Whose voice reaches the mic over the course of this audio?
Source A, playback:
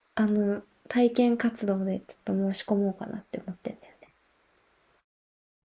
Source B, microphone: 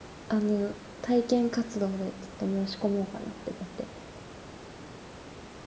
echo only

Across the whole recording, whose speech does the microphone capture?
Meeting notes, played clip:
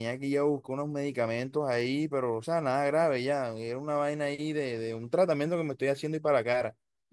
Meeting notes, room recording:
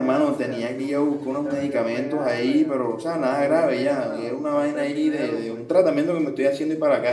both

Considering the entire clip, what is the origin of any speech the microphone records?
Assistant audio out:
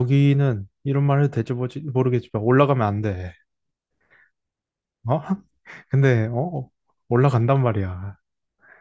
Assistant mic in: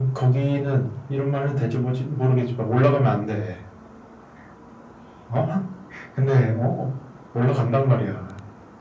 echo only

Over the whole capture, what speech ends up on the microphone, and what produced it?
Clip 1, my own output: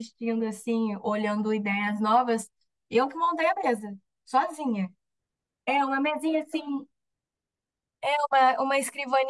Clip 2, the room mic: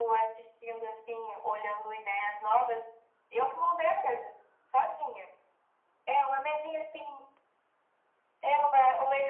echo only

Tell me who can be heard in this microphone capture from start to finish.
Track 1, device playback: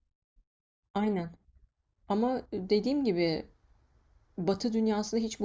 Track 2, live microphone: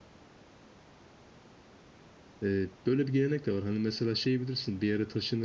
user only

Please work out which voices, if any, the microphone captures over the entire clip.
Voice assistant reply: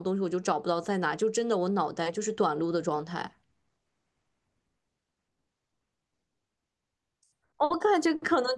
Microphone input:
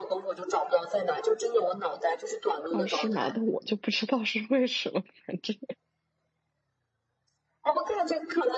both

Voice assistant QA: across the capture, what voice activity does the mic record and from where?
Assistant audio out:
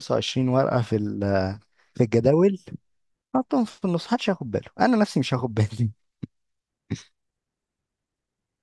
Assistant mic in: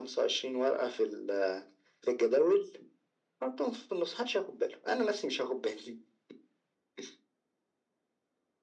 echo only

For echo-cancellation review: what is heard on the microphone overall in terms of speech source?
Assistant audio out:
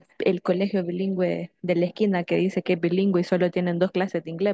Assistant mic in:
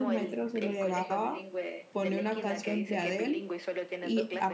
both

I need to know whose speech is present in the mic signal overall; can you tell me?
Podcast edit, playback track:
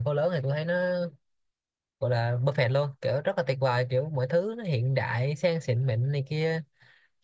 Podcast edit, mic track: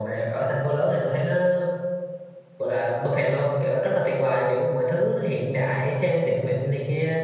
echo only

